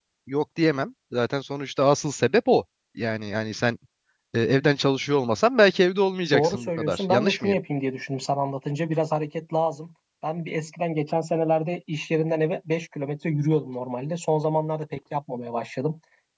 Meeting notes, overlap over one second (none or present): present